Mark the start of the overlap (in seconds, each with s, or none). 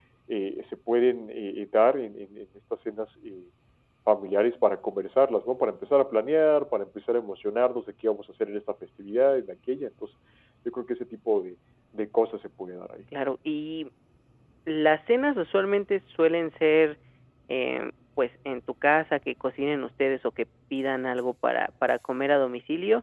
none